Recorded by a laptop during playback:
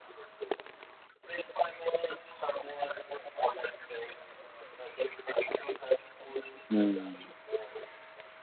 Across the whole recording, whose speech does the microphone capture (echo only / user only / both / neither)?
both